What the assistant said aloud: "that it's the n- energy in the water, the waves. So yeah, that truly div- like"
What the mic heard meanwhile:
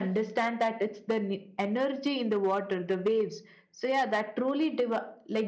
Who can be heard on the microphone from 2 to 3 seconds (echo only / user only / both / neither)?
echo only